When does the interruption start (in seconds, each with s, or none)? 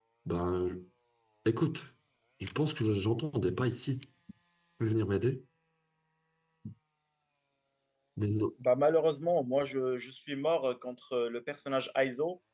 none